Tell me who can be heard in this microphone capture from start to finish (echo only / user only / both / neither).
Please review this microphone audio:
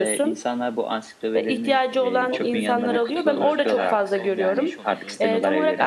both